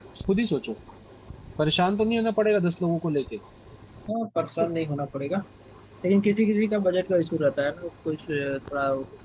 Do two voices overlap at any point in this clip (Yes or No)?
No